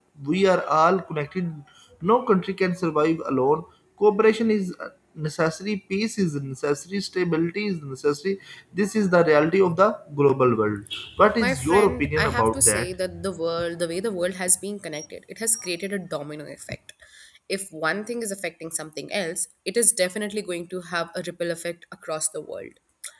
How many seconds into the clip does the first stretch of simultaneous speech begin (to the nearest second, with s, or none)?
11 s